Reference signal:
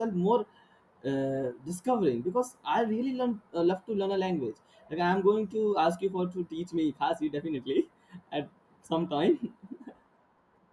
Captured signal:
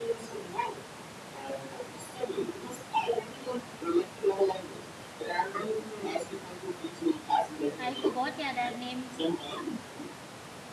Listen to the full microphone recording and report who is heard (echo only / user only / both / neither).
both